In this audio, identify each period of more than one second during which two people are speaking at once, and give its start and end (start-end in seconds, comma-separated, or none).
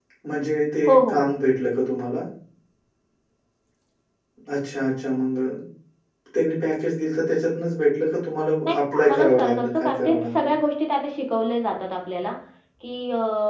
8.6-10.5